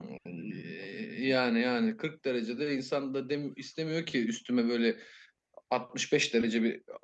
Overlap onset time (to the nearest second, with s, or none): none